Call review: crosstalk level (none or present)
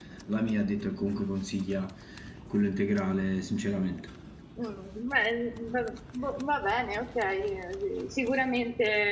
none